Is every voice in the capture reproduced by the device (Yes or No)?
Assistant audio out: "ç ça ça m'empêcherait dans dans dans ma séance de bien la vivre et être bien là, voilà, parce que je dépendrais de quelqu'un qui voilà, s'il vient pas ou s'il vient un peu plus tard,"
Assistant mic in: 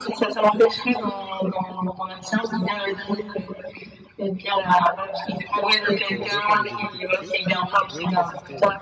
No